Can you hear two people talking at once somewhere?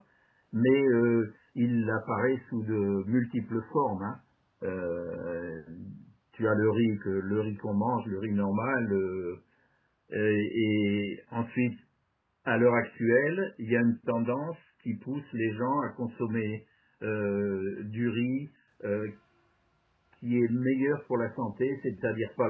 No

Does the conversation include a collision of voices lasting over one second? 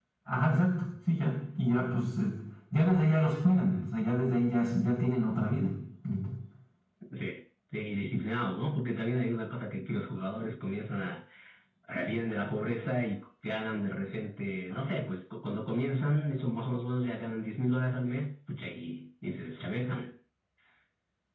No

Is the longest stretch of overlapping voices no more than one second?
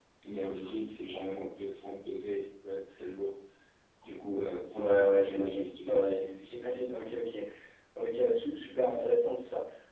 No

